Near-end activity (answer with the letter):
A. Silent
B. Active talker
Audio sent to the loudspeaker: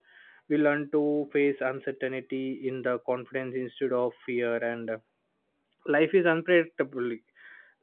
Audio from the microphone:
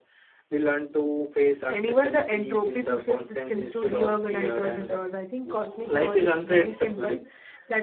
B